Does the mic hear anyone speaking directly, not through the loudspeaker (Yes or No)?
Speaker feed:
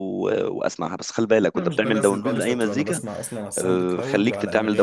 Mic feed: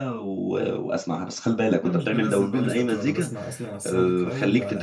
No